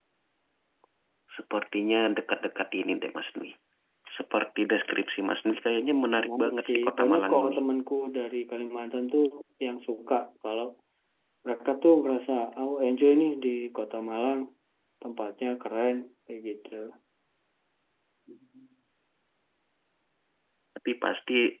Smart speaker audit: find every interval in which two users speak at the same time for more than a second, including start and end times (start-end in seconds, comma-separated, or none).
6.2-7.6